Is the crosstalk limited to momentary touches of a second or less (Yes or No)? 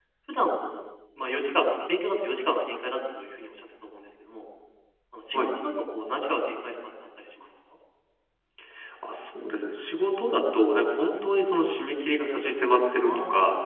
Yes